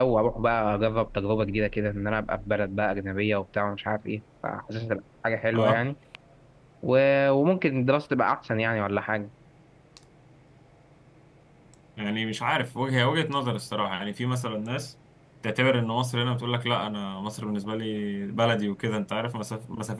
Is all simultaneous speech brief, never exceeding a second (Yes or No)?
Yes